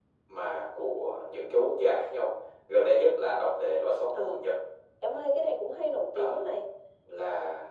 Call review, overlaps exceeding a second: none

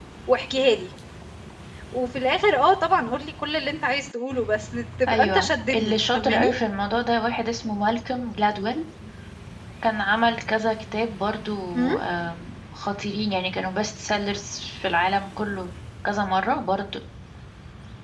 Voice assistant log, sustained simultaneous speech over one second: present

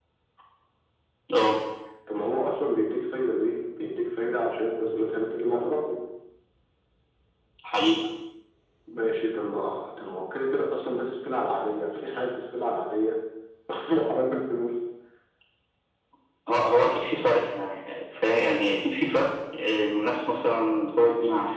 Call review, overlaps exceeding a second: none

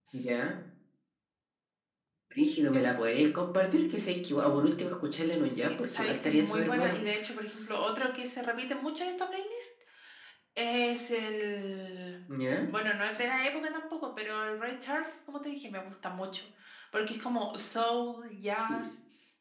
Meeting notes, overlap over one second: present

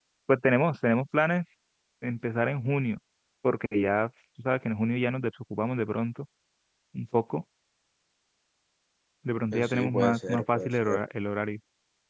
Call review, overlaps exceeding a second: present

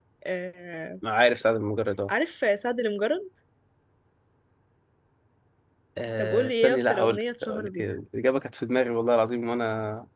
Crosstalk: present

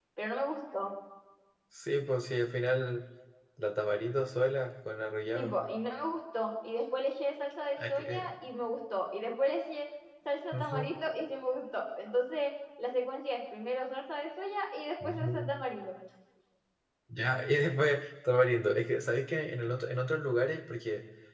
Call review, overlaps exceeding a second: none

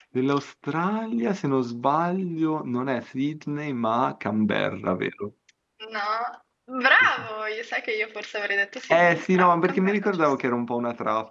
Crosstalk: present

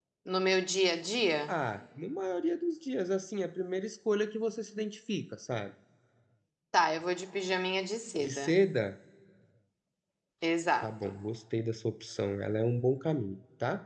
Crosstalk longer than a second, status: none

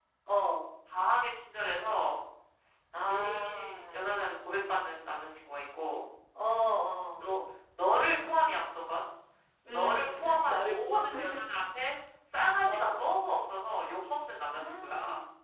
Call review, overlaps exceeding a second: present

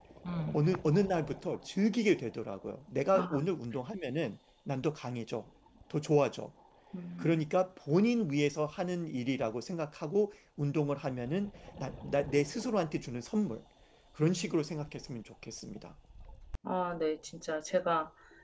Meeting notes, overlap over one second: none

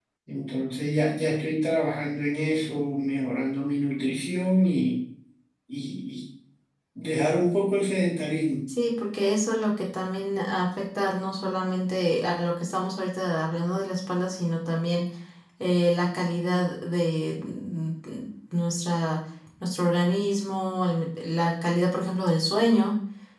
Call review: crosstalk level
none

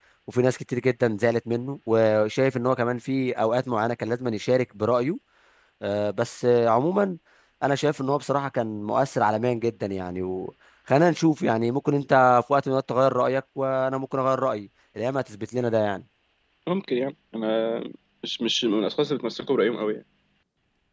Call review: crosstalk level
none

